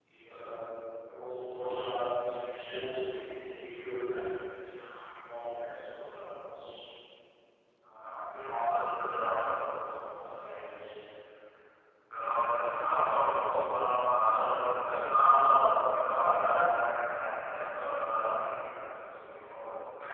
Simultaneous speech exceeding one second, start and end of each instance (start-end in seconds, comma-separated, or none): none